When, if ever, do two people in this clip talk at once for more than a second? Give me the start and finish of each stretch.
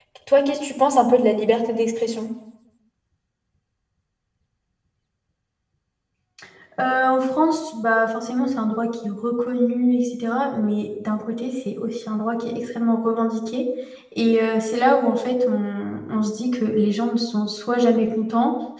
none

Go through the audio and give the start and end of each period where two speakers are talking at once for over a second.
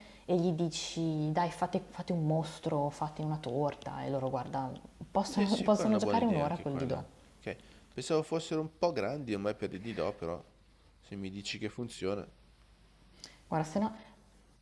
5.3-7.0

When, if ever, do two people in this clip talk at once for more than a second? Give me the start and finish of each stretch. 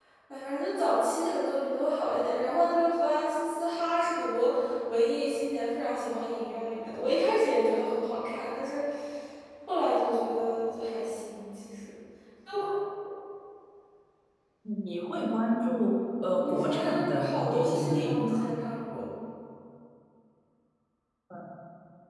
16.4-18.5

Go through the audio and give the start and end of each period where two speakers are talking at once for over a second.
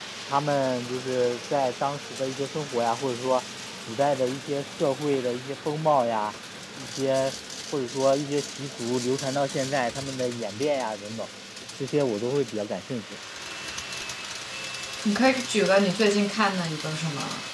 none

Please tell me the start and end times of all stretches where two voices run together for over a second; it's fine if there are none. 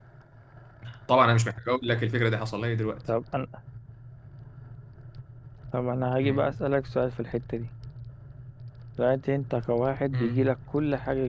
none

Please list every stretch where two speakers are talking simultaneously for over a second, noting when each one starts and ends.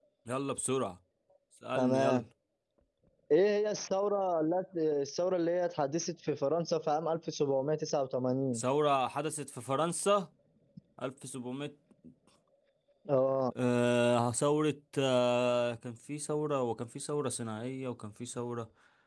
none

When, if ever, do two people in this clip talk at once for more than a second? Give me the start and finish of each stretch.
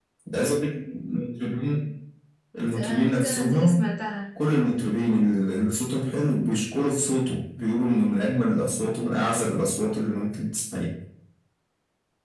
2.6-3.9

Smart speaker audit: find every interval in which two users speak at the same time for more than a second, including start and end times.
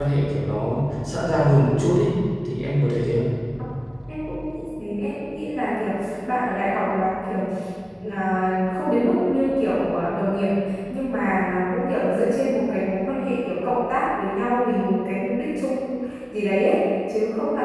none

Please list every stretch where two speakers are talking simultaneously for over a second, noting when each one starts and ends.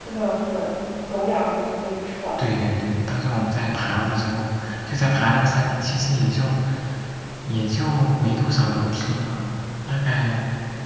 none

